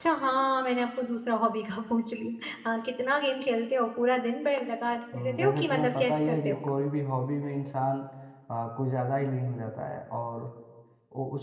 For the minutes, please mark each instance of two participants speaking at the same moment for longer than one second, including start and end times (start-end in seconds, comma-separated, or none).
5.1-6.6